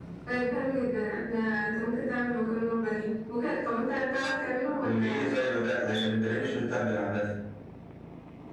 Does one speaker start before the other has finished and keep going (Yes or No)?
Yes